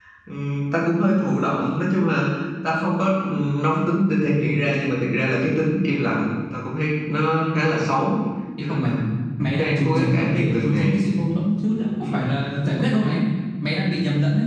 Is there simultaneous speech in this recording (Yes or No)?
Yes